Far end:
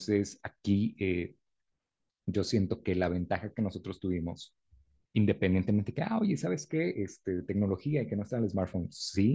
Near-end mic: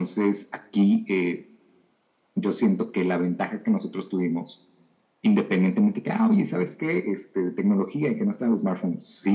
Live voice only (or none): none